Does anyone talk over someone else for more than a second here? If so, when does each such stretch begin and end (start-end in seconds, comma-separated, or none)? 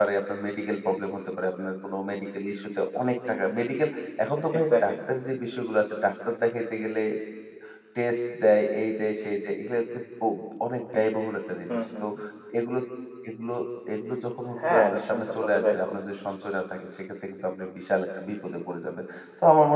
14.7-15.9